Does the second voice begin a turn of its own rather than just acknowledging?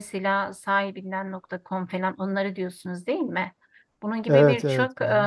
No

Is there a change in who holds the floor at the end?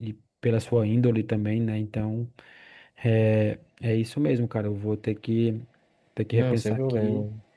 Yes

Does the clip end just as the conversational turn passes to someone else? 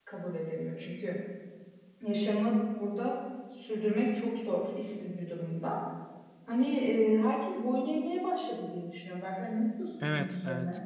Yes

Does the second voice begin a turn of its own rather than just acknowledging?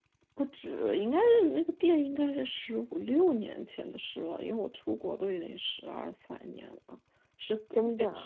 No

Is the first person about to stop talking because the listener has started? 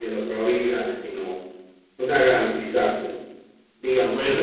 Yes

